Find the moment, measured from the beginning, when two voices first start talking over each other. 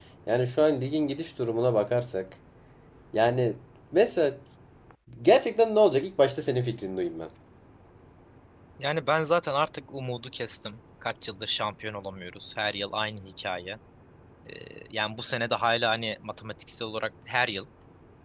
none

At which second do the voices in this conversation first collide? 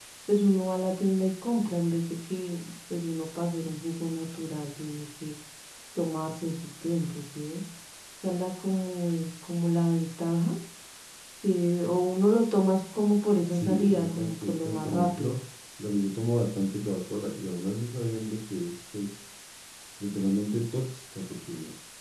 13.5 s

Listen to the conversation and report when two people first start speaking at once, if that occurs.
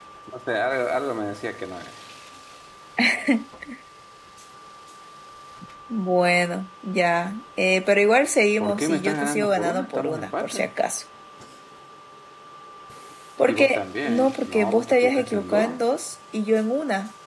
8.6 s

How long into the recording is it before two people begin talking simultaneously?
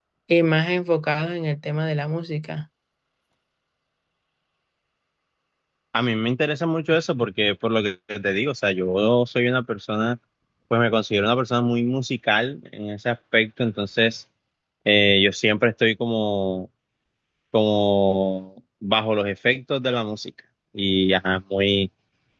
none

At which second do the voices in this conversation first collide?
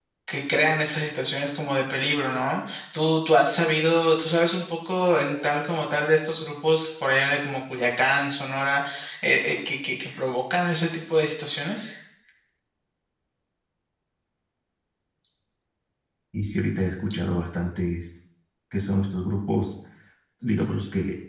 none

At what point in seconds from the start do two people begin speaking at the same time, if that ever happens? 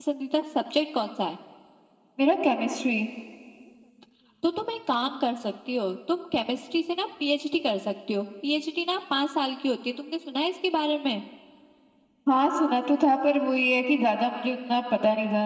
none

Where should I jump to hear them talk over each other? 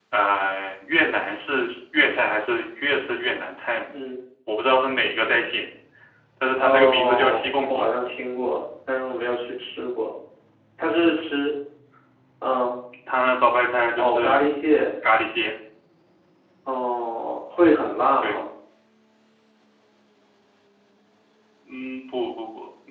6.6 s

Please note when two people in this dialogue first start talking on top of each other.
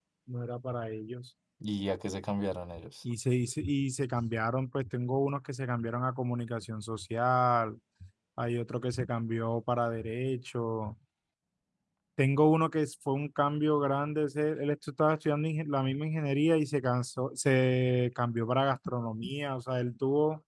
none

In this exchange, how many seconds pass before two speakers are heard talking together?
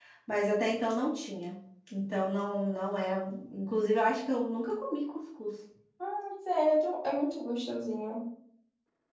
none

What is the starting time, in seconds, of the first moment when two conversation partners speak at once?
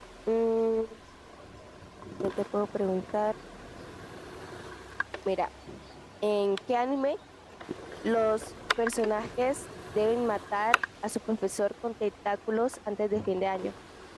none

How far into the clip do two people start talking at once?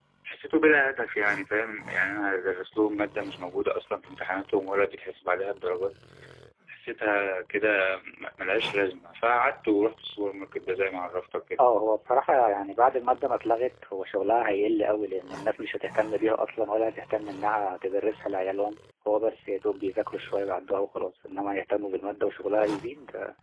none

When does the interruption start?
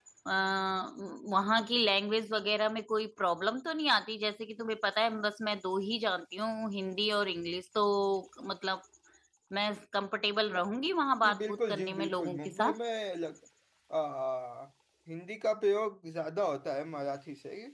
11.2 s

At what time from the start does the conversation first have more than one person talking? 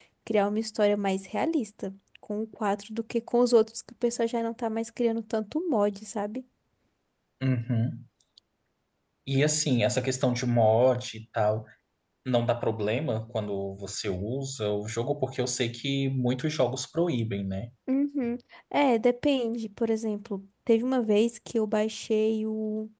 none

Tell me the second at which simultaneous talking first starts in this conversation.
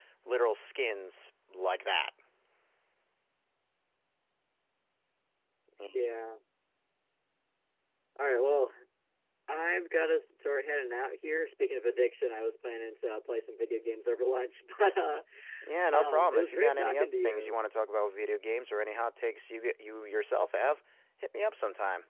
15.9 s

